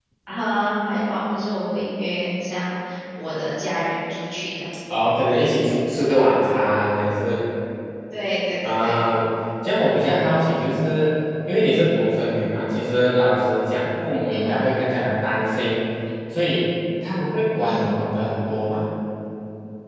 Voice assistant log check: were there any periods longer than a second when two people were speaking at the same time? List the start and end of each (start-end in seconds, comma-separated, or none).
none